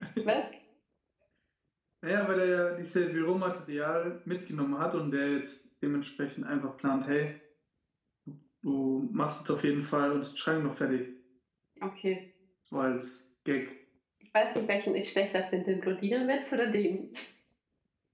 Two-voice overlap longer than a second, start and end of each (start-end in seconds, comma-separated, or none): none